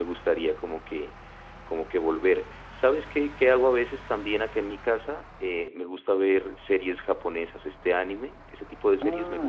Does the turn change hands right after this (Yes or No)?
Yes